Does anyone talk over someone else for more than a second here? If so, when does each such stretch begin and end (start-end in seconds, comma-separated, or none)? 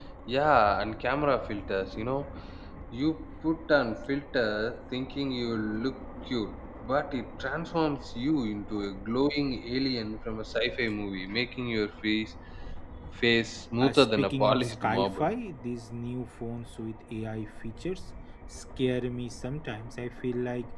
13.8-15.3